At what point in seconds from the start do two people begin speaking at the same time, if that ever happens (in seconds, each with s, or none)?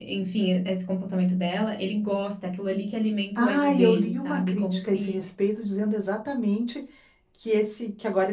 3.4 s